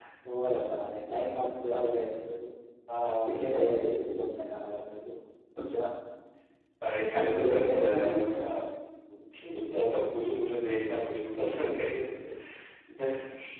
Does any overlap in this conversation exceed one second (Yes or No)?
Yes